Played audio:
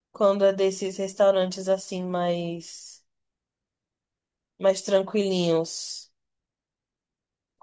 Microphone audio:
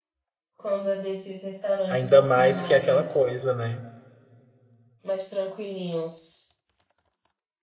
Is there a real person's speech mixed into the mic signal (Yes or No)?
Yes